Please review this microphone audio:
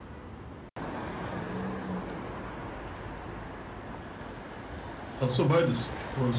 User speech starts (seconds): 5.2 s

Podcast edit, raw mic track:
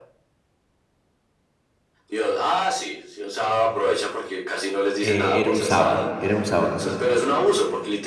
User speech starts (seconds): 5.0 s

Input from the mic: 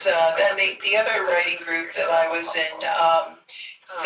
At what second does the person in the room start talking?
none

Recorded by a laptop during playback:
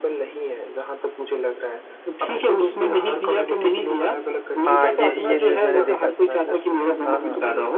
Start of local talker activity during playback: 4.7 s

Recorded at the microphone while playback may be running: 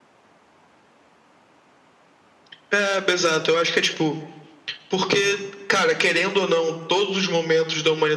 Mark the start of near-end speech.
none

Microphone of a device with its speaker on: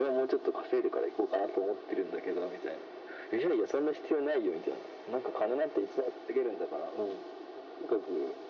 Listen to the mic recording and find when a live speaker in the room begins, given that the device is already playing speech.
none

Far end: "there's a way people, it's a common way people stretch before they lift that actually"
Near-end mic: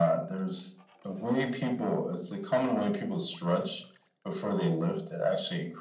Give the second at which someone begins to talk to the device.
none

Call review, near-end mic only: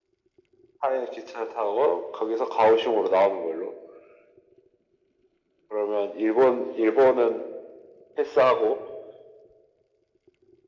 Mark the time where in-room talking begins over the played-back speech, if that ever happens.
none

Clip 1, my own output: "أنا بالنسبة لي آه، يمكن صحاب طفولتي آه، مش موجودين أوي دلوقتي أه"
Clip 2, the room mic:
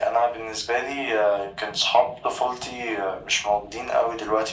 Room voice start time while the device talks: none

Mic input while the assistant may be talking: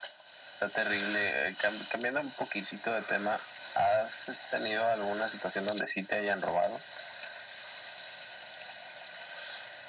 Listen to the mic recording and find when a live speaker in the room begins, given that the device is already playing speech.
none

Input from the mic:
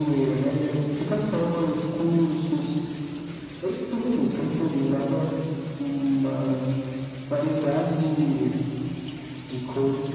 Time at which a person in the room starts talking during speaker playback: none

